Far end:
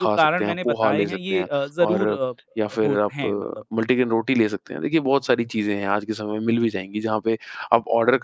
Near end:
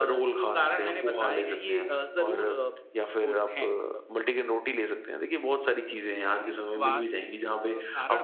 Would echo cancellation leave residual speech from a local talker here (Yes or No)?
Yes